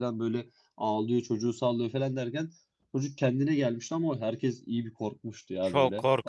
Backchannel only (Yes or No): No